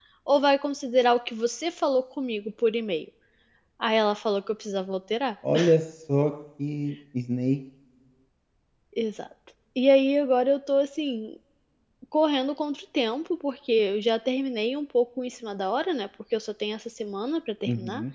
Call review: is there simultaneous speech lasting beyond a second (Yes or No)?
No